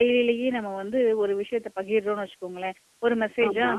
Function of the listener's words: listening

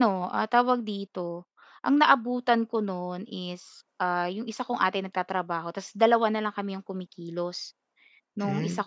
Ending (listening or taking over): listening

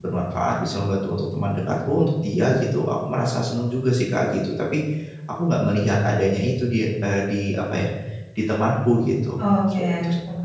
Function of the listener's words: taking over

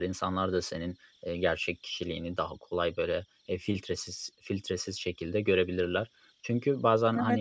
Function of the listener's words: listening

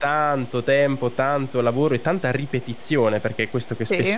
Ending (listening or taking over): listening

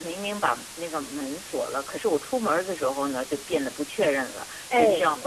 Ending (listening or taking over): listening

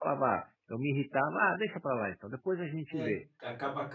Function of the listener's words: taking over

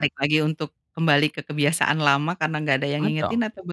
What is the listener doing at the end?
taking over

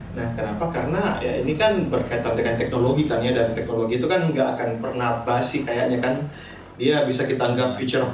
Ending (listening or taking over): listening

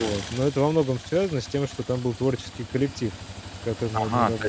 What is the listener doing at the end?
taking over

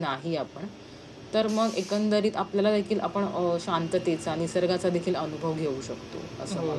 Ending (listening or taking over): taking over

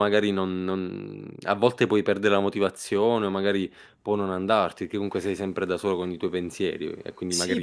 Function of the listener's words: taking over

